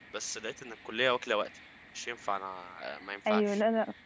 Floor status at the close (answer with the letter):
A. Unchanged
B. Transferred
B